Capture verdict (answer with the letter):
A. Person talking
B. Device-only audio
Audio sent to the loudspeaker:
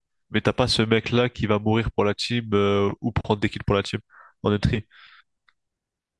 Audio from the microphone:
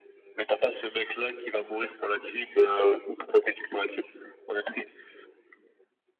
B